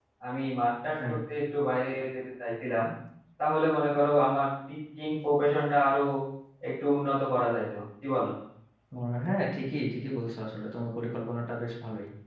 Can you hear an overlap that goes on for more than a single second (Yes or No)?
No